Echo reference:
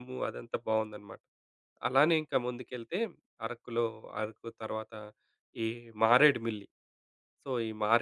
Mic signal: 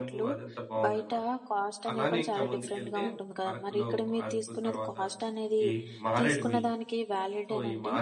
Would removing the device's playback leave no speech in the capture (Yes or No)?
No